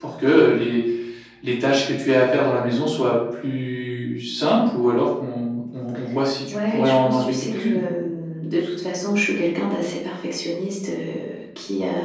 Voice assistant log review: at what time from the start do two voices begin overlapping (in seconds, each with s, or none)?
6.5 s